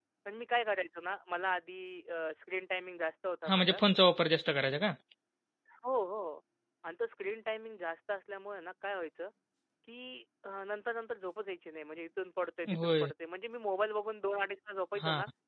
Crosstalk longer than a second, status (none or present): none